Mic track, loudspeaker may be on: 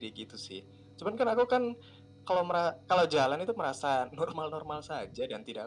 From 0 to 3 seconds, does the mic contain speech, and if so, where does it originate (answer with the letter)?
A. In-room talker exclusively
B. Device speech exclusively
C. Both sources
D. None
B